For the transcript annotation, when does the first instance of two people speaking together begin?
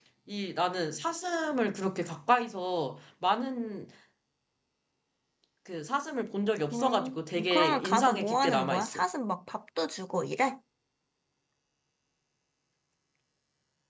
6.7 s

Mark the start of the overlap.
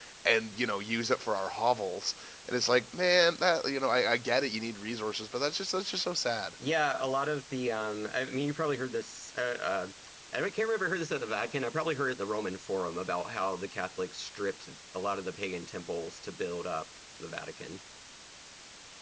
none

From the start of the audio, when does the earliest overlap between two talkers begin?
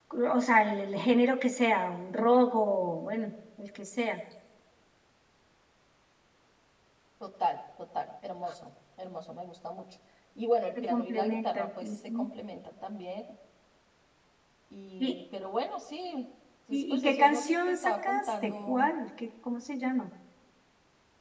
10.9 s

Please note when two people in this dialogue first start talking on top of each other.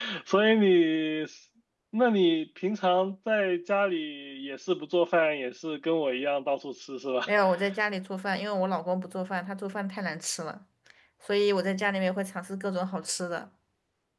none

